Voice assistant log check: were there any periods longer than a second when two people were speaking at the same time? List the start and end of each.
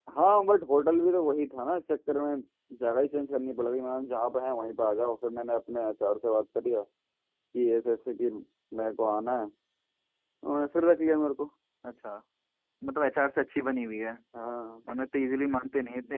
none

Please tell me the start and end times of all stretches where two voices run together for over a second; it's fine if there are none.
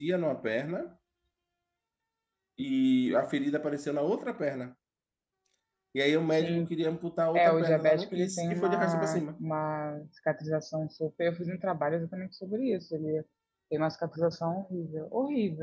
7.3-9.2

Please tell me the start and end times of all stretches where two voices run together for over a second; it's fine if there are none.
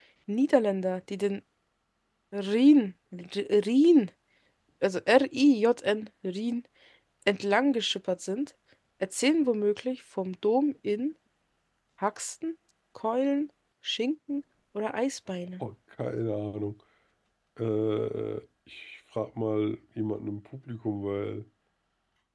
none

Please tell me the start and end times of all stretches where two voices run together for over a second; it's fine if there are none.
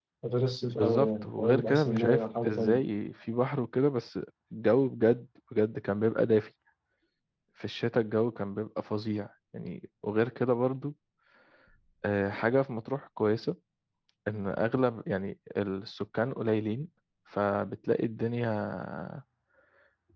0.8-2.8

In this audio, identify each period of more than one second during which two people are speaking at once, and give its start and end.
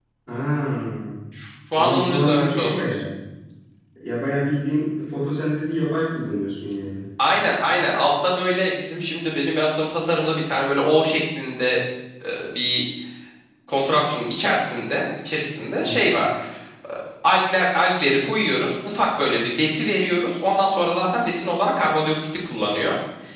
1.7-3.0

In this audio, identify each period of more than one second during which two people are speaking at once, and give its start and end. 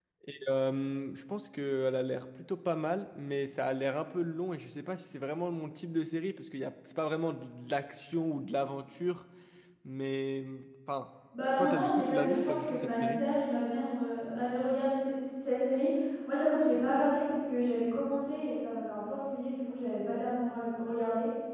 11.6-13.2

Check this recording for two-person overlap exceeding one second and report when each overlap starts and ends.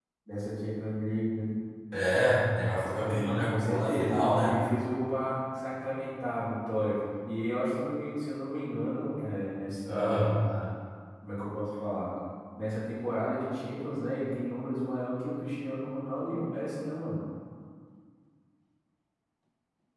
3.0-4.5

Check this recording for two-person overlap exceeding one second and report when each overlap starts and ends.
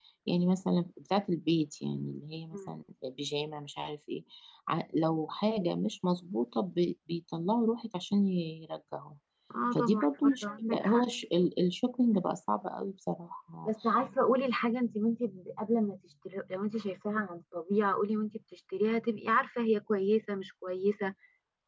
9.7-11.0

